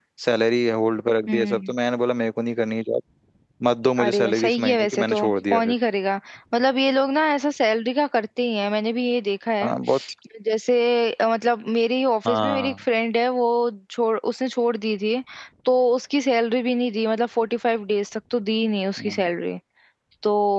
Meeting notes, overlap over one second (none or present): present